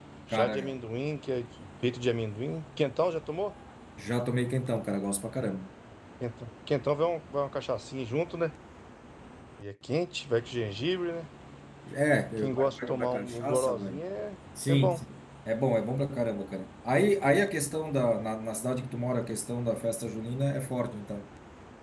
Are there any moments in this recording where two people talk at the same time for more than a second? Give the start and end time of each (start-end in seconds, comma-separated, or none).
12.4-14.0